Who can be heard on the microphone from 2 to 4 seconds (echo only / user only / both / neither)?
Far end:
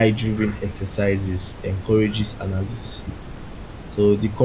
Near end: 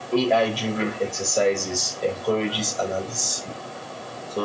echo only